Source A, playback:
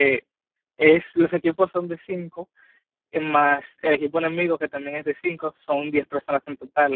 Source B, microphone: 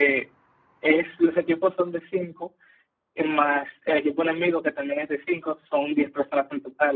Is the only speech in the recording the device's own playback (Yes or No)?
Yes